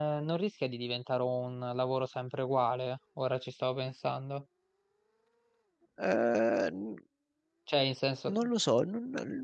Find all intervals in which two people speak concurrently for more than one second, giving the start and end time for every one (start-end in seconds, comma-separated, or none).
none